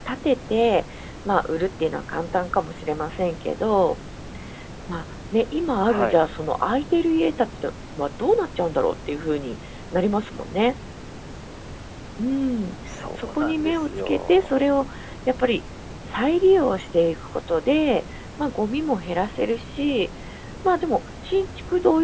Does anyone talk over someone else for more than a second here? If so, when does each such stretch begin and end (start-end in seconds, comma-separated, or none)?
13.2-14.6